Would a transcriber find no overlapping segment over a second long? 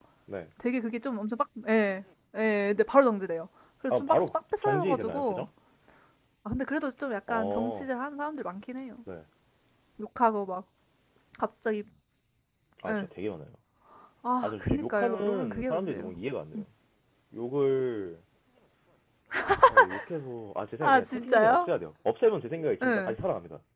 No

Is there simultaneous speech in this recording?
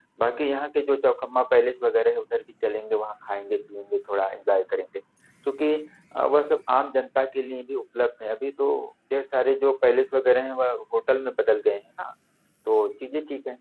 No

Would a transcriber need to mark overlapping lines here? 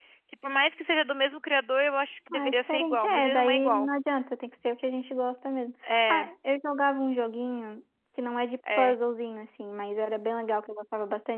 Yes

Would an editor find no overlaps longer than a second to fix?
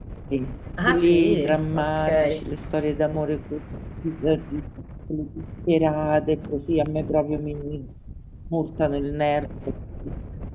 No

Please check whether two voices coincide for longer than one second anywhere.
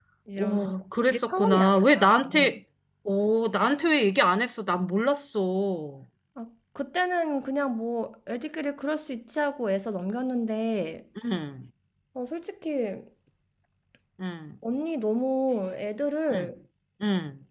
Yes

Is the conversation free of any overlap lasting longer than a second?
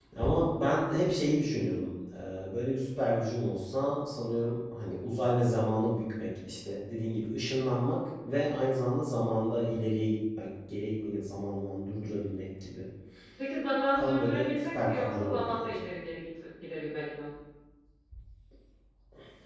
No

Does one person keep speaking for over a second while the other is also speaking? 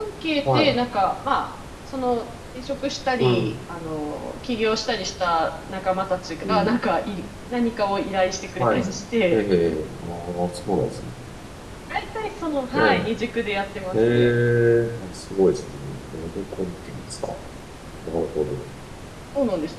No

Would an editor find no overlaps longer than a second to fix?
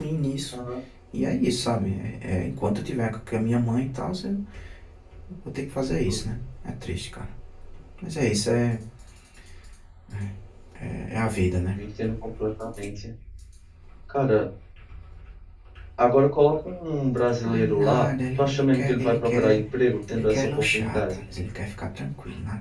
No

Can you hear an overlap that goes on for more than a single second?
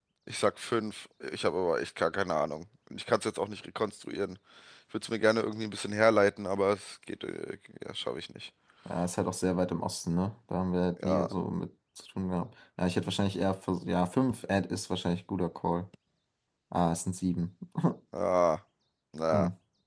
No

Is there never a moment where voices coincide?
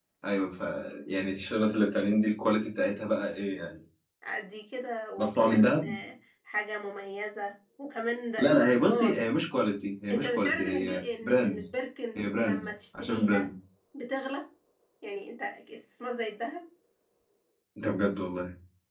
No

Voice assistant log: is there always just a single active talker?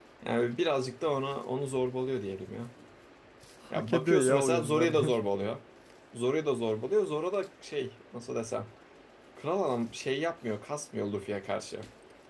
No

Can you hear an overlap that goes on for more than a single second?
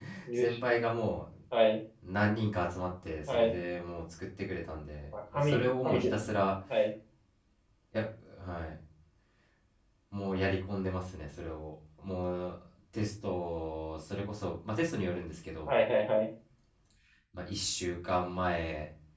Yes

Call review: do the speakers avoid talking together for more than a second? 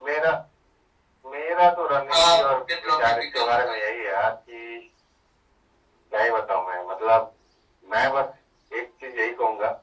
No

